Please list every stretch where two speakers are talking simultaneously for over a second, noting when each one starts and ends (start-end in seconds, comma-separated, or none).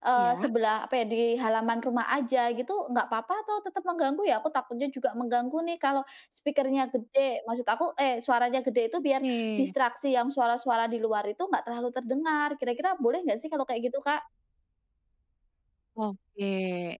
none